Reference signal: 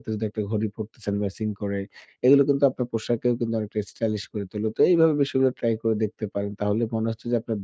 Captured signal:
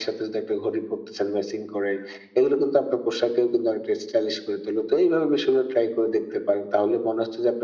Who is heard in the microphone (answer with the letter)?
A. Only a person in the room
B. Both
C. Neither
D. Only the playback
D